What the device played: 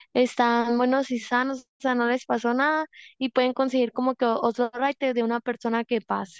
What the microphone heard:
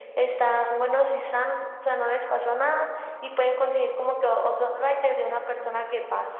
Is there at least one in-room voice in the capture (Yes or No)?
No